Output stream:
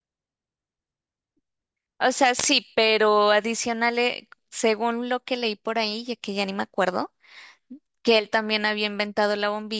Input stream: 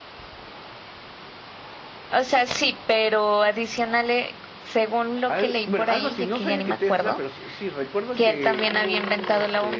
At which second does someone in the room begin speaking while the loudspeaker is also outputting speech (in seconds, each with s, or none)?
5.3 s